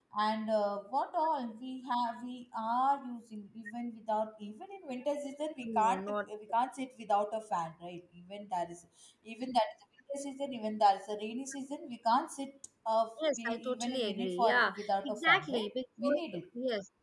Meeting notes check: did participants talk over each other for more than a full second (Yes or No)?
Yes